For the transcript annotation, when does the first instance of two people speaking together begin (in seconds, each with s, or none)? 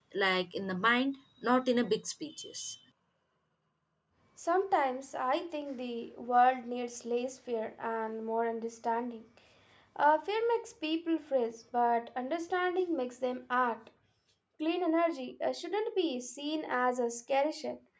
none